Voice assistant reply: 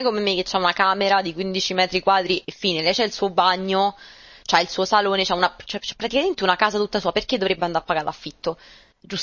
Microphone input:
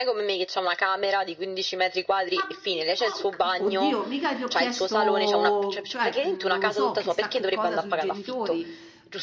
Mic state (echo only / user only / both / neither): both